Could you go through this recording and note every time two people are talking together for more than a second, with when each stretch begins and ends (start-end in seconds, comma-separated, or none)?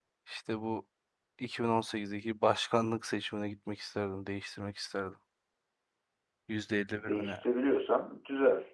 none